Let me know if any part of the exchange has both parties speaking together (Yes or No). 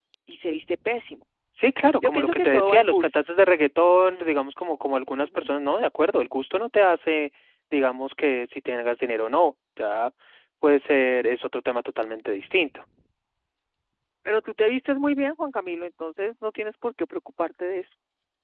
Yes